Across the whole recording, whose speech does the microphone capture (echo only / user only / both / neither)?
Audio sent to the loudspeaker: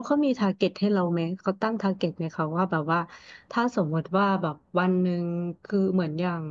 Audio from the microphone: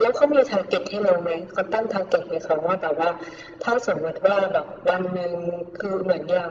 echo only